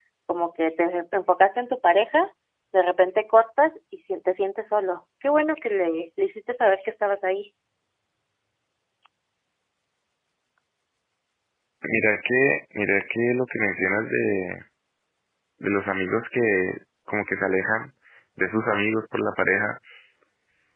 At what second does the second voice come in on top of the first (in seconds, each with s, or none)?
none